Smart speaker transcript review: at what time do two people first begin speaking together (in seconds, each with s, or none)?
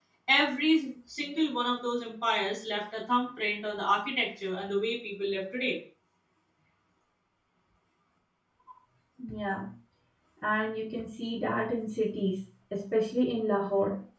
none